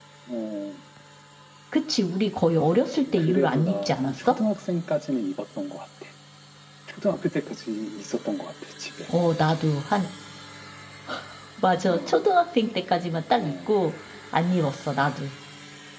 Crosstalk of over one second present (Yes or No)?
Yes